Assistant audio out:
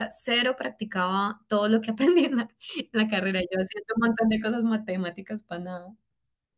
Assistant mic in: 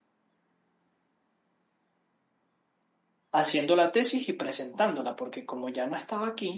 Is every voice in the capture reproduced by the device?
No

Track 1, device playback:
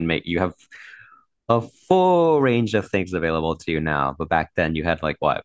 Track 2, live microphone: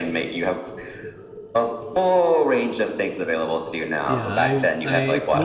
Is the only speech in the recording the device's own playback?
No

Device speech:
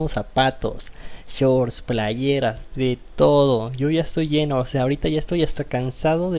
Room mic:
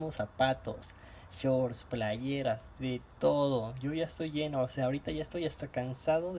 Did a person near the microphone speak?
No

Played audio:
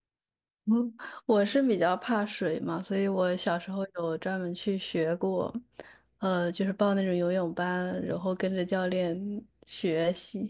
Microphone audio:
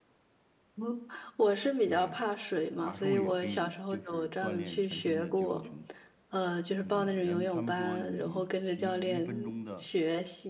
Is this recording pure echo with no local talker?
No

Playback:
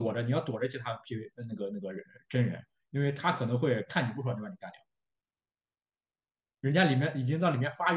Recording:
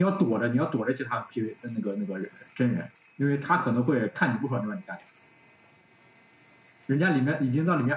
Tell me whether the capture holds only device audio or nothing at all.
Yes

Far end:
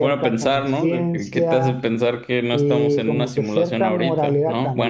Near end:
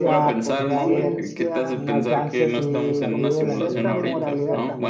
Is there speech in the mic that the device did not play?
Yes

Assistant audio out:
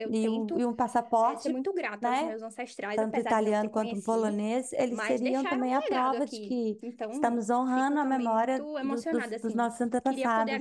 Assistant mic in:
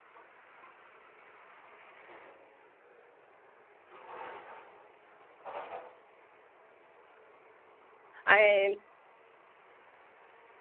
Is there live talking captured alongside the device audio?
Yes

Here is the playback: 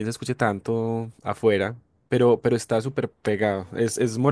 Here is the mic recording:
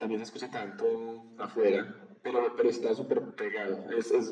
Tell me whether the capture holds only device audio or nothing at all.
Yes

